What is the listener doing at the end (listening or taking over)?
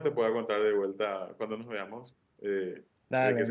taking over